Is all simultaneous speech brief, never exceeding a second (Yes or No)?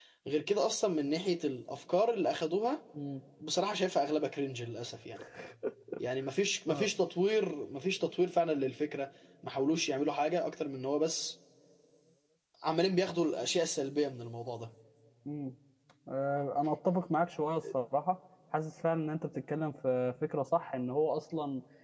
Yes